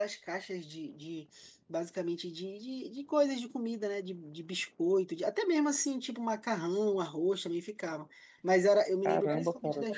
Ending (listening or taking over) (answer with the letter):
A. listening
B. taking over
B